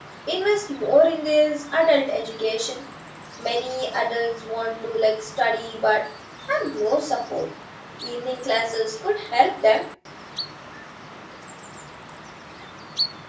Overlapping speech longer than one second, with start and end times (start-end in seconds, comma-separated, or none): none